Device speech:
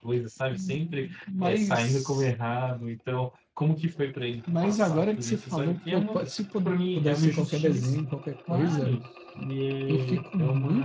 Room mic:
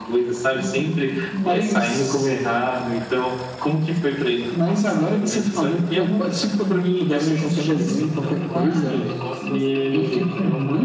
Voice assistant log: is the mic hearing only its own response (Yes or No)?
No